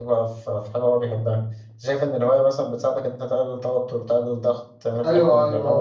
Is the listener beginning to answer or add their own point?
Yes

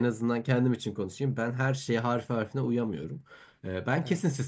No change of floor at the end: Yes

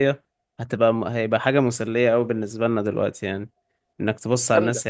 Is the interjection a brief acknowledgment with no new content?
Yes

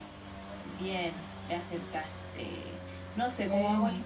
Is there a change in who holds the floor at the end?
No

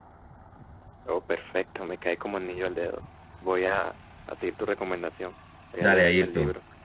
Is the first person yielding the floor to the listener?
Yes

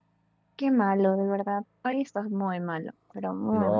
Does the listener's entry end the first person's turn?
Yes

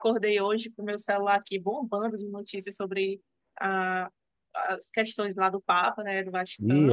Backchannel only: No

